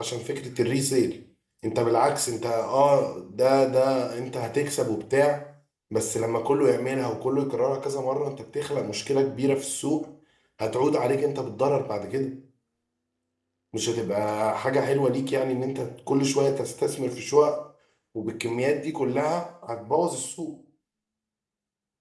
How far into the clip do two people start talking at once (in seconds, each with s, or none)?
none